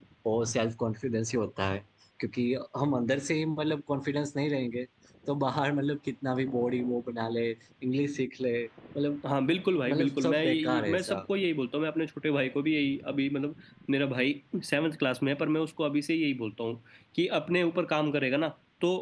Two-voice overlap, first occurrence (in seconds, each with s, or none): 9.9 s